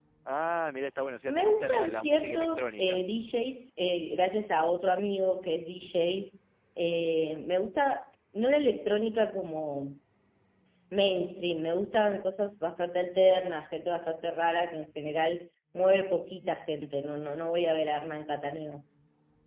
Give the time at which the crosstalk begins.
1.3 s

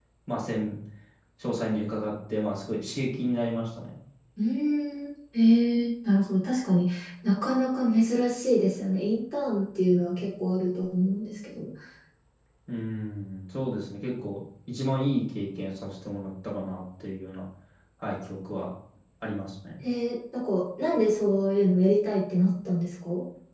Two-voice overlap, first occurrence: none

